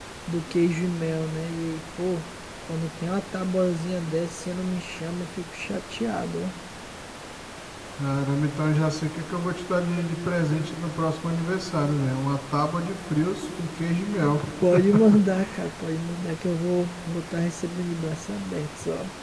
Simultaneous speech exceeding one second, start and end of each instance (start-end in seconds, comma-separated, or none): none